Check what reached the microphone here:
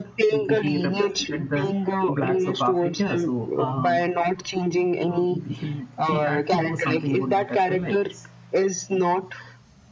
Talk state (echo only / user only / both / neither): both